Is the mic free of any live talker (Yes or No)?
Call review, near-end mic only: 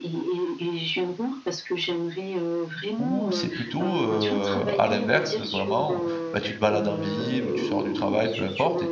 No